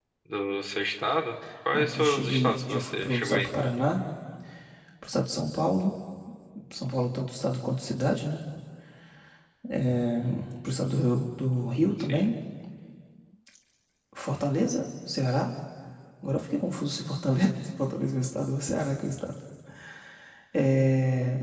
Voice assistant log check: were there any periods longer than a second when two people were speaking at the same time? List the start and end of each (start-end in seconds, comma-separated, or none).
1.7-3.5